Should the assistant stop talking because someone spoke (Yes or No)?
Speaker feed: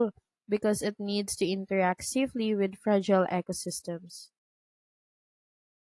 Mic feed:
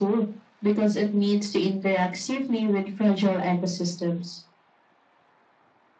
No